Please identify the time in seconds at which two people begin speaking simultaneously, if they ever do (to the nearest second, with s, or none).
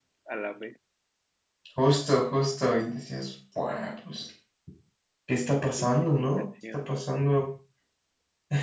6 s